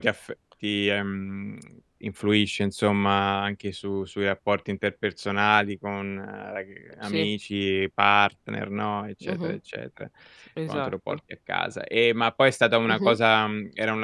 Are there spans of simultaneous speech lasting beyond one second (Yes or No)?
No